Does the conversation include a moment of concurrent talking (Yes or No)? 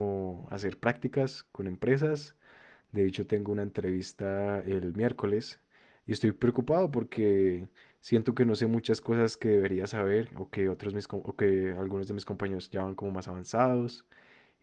No